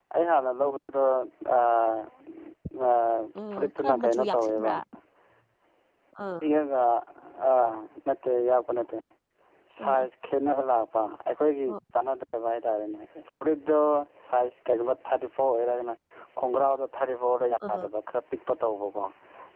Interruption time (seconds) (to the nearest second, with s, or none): 4 s